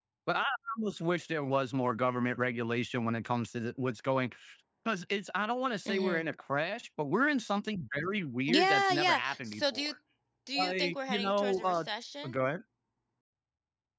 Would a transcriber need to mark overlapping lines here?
Yes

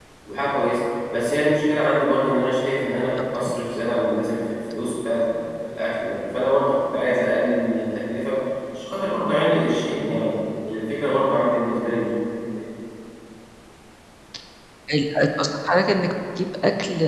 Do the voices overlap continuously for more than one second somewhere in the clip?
No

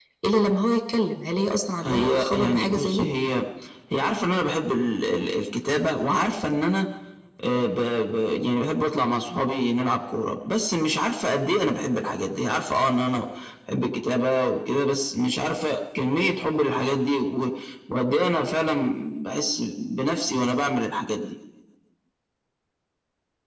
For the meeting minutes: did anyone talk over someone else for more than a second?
Yes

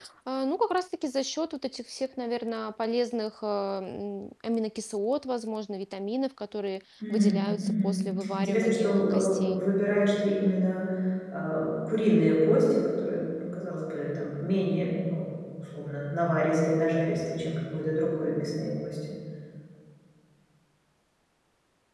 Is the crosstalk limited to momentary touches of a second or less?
No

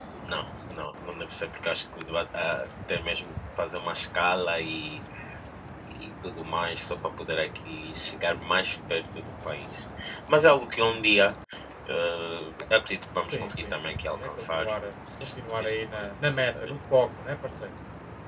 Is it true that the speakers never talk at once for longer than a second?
No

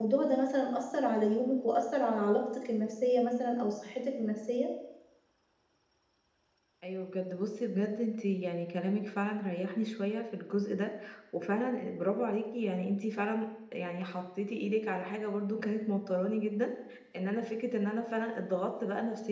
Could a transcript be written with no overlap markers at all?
Yes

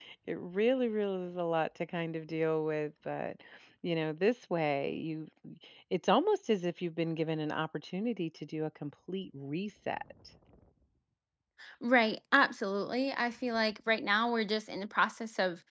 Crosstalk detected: No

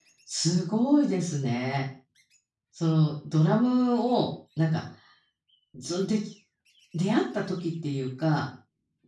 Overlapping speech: No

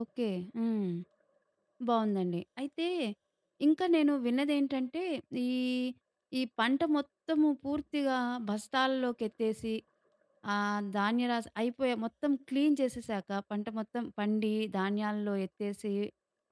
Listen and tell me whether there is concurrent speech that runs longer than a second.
No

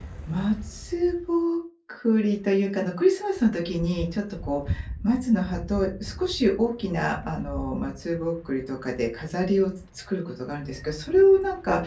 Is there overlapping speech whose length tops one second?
No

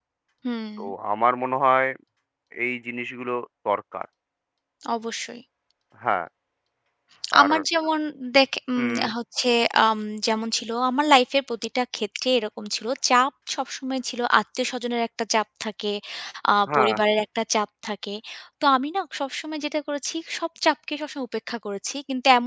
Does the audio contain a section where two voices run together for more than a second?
No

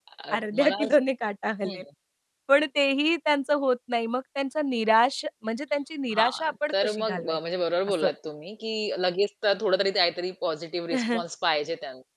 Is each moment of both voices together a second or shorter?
No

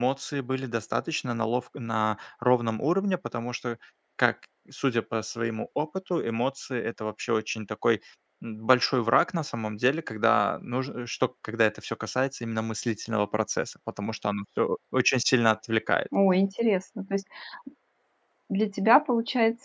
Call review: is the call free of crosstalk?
Yes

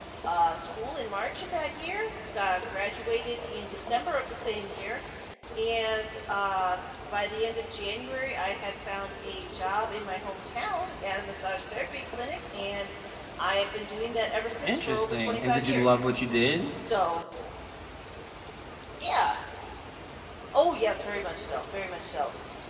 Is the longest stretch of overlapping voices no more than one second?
No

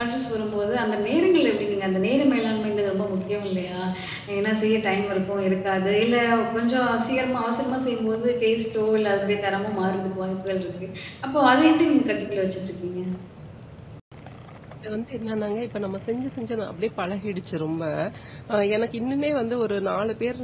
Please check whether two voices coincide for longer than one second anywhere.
No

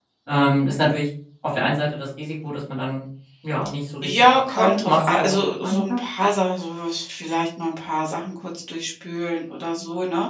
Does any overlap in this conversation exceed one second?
Yes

